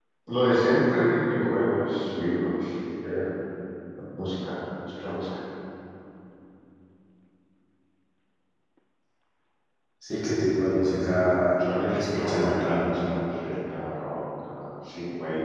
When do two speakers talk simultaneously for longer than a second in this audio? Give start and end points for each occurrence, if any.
10.9-12.9

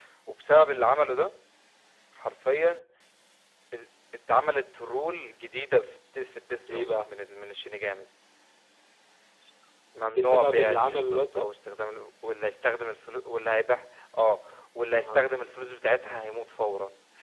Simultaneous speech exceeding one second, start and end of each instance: 10.1-11.5

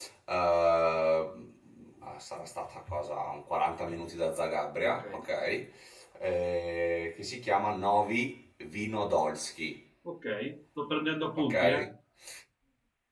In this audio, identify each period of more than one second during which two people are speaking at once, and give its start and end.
none

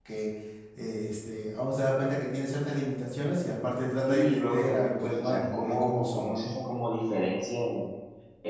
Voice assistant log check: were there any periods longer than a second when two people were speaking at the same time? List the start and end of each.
4.1-6.5

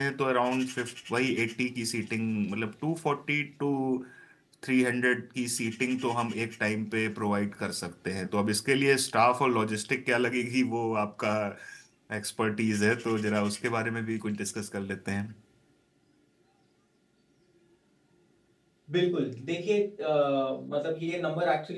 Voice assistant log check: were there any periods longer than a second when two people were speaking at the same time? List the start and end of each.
none

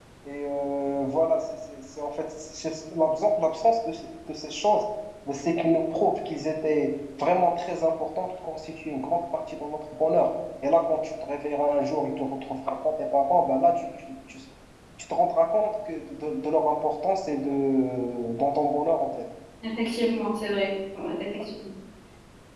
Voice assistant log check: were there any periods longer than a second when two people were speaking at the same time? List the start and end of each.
none

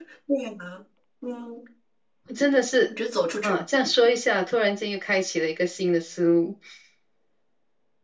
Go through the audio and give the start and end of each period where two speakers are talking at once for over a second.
none

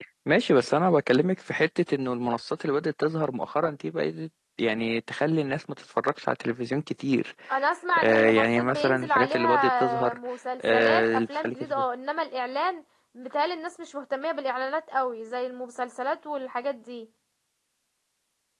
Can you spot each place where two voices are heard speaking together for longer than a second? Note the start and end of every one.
8.0-10.2, 10.6-11.8

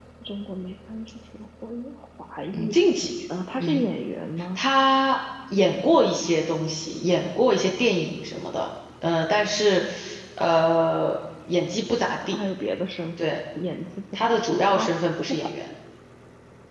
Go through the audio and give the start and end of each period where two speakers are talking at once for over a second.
14.1-15.5

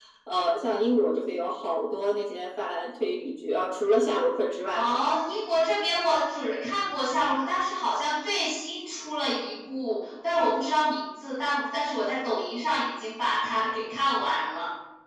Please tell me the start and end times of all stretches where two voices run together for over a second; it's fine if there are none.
none

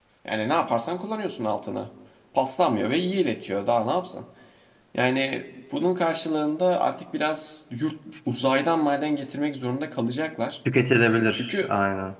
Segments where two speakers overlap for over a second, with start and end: none

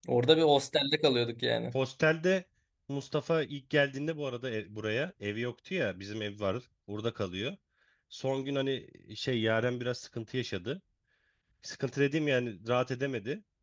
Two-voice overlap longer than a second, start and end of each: none

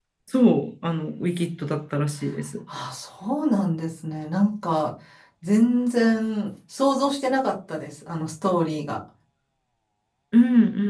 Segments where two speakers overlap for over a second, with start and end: none

